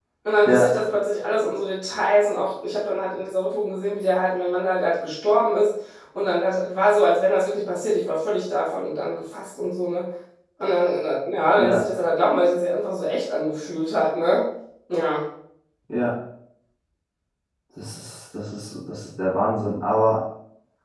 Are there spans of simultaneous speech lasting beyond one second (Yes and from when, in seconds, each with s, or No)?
No